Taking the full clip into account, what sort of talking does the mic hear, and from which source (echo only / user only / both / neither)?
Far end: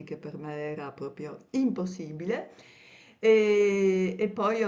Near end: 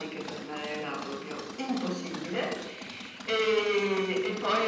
echo only